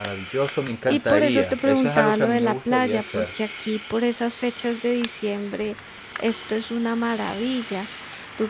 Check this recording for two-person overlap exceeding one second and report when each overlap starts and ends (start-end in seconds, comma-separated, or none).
0.9-3.2